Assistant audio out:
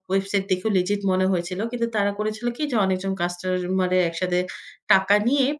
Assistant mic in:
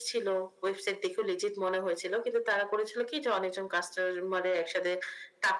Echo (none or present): present